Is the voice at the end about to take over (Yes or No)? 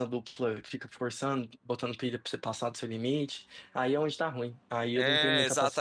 Yes